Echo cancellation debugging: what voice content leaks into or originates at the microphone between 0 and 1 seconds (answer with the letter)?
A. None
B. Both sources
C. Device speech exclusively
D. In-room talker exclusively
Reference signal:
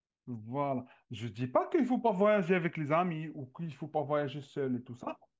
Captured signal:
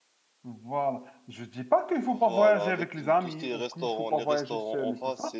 C